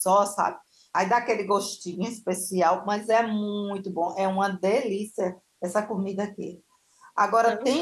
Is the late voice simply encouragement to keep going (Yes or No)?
Yes